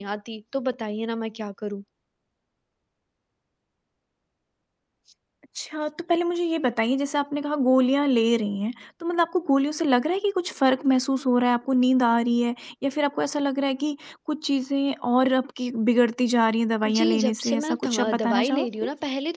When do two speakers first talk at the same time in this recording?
16.8 s

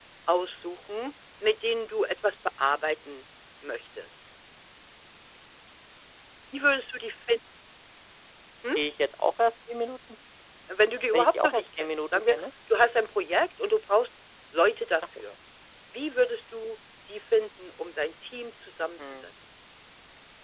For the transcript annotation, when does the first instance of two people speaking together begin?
11.1 s

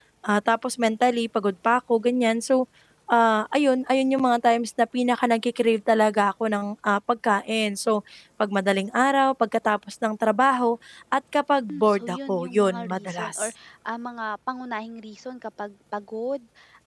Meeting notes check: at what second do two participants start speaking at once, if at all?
11.7 s

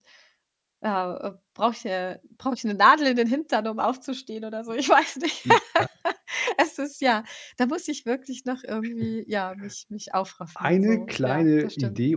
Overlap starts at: 10.6 s

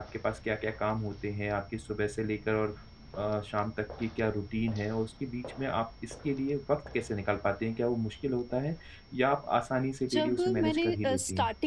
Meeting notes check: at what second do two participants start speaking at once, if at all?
10.0 s

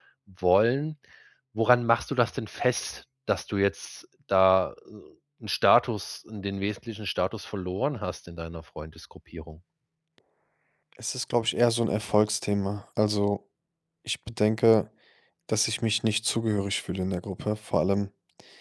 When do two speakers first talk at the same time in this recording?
none

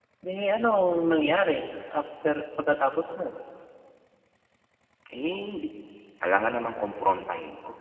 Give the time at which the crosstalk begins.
none

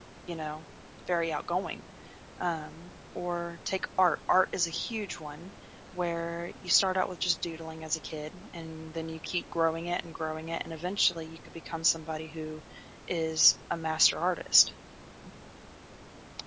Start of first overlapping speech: none

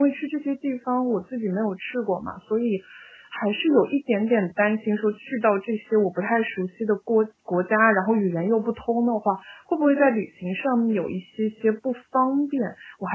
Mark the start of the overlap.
none

